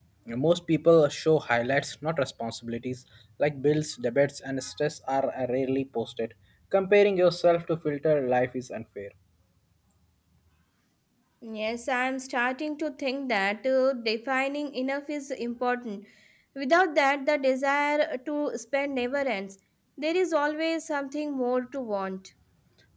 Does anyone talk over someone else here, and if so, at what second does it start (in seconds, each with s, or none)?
none